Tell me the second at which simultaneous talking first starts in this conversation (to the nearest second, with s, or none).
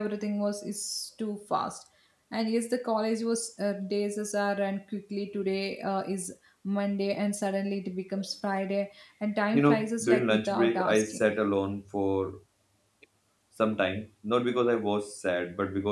10 s